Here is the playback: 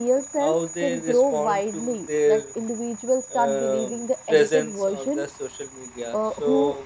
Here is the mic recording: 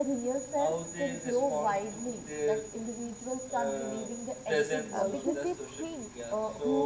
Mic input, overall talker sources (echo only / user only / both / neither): both